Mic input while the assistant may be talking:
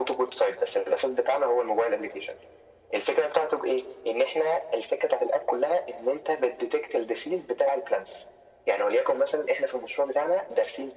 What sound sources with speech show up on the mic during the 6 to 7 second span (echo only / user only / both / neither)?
echo only